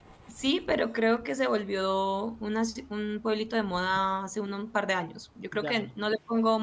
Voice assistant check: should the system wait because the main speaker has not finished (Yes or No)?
Yes